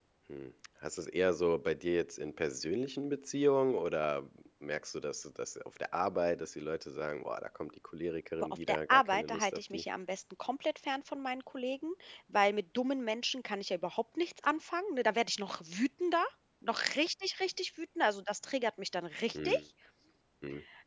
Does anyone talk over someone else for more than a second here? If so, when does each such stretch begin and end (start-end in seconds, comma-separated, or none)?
8.4-9.8